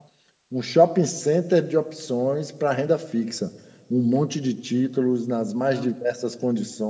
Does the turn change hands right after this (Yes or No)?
No